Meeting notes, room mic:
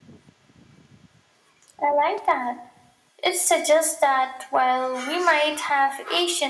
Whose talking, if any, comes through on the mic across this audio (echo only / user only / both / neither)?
echo only